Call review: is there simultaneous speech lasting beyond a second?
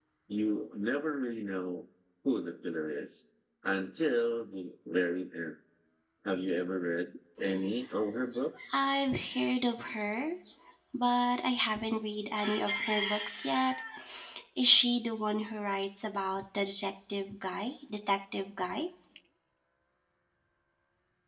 No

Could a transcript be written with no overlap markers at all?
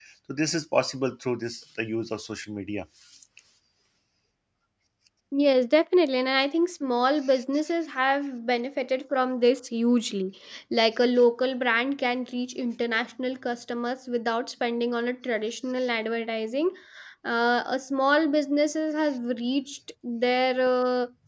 Yes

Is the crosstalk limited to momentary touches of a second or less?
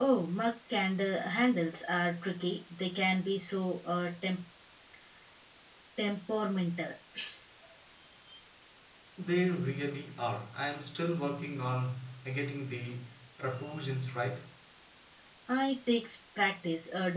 Yes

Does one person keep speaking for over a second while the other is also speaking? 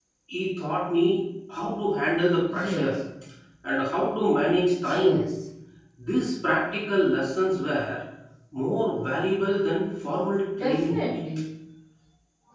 No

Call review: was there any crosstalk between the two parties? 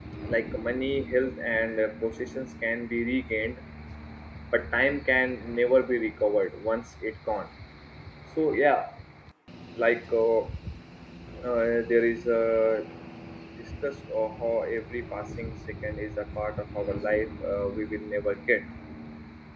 No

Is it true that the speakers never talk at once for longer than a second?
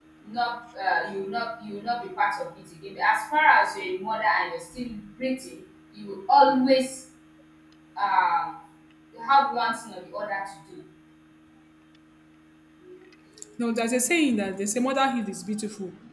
Yes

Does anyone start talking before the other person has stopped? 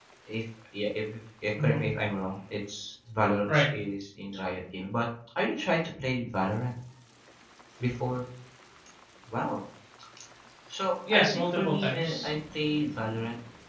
Yes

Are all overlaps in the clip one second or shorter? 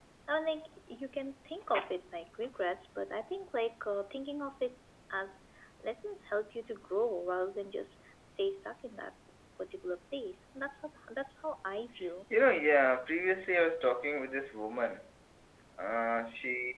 Yes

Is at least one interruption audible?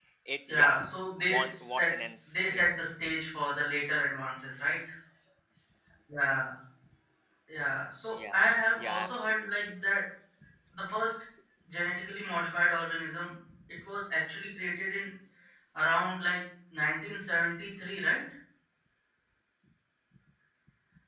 Yes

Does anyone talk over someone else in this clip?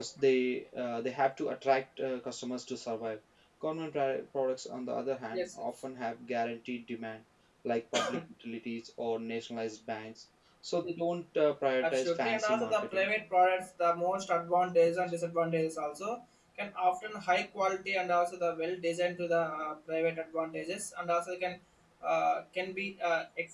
Yes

